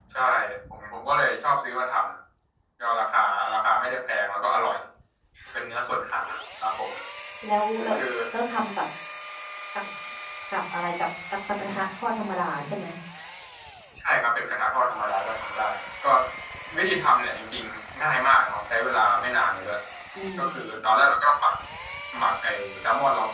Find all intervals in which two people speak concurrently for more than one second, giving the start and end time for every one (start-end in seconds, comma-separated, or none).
none